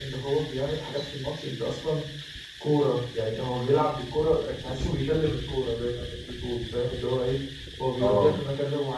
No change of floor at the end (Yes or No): Yes